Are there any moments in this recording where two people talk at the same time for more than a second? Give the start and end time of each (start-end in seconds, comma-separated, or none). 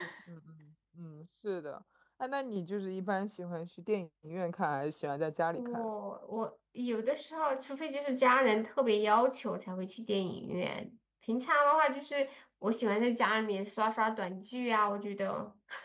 none